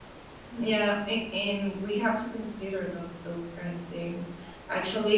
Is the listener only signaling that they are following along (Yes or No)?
Yes